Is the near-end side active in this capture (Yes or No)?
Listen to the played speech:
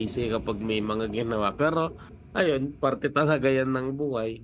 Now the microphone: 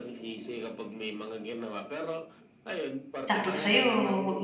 Yes